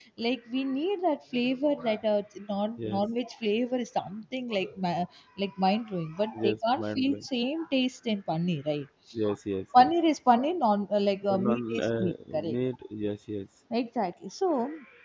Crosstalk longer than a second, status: present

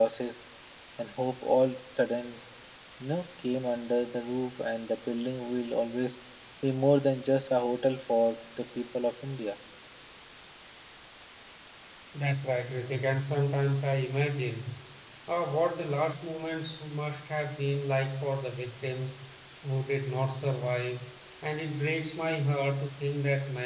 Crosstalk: none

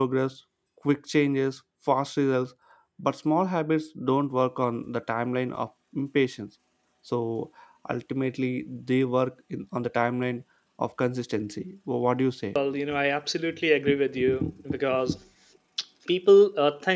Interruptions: none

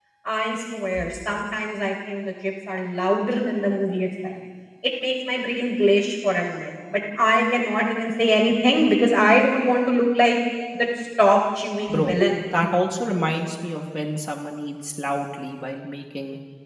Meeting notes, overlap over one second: none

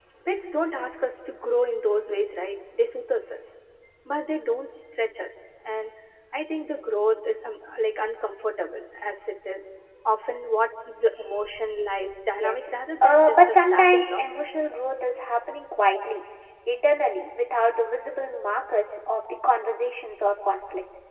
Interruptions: present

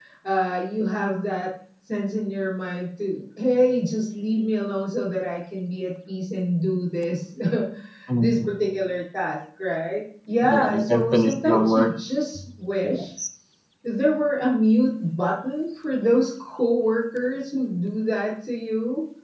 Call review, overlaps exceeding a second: present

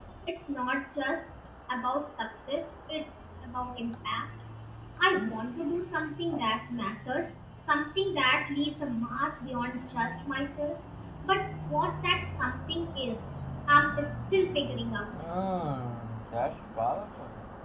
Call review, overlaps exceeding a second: none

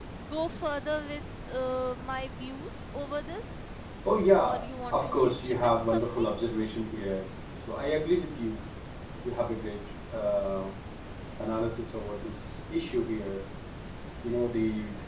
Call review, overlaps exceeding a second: present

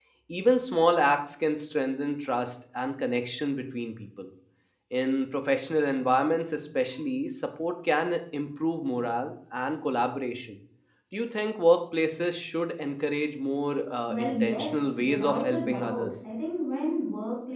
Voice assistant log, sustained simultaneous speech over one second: present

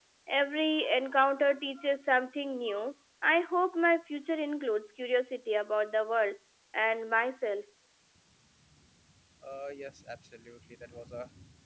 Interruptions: none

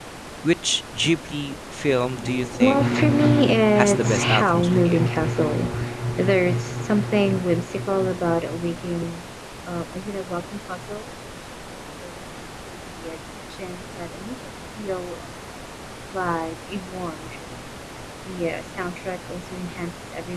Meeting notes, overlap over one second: present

